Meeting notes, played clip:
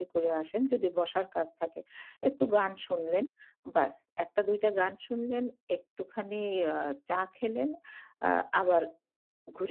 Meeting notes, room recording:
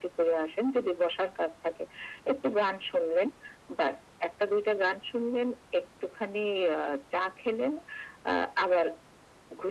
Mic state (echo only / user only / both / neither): echo only